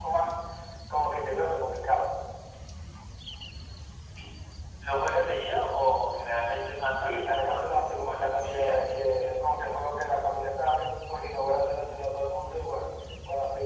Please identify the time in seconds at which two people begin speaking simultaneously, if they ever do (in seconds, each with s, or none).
6.9 s